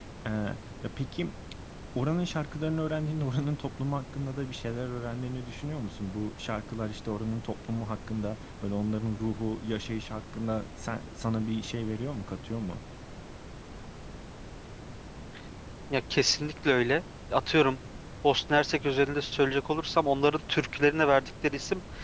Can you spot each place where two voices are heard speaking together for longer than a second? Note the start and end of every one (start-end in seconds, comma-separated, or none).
none